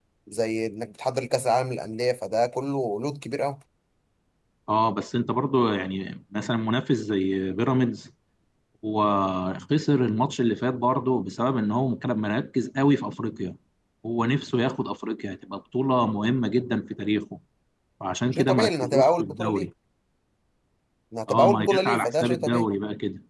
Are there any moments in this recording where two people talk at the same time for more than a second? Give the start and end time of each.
18.3-19.7, 21.3-22.6

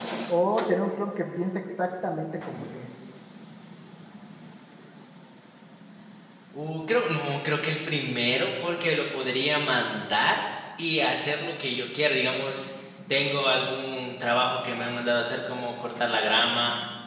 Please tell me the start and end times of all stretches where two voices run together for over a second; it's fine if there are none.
none

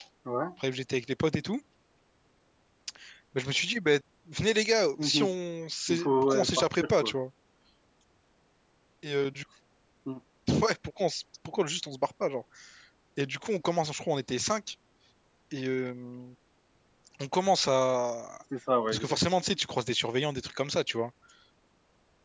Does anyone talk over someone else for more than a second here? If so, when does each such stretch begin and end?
5.9-7.1

